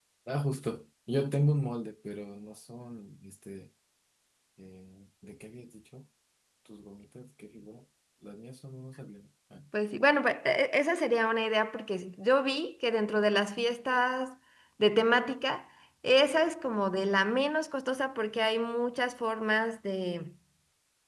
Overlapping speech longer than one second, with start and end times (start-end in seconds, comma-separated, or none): none